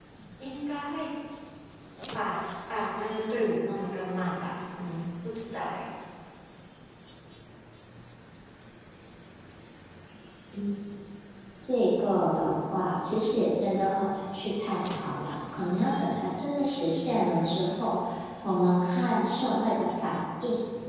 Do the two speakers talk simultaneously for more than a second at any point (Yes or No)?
No